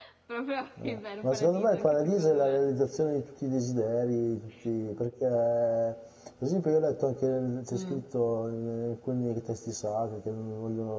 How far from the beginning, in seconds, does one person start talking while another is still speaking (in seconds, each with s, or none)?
0.8 s